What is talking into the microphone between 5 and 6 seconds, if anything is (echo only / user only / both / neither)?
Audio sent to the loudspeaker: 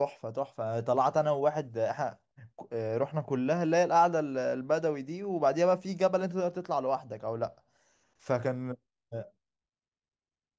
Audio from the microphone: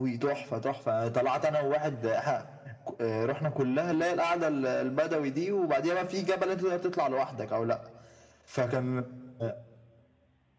echo only